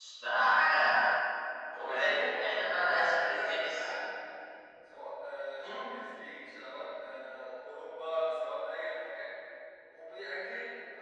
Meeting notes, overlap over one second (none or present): present